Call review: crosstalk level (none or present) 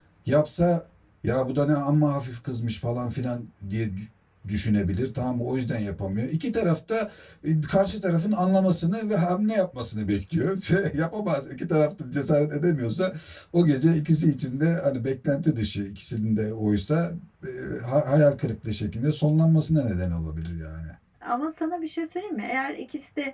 none